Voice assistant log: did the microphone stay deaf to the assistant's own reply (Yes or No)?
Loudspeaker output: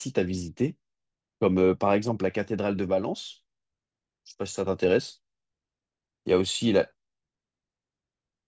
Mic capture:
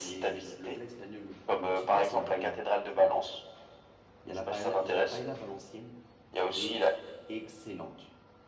No